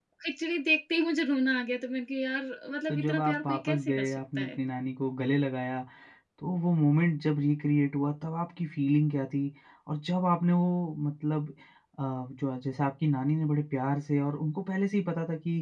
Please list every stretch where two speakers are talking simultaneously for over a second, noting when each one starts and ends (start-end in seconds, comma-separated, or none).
2.9-4.6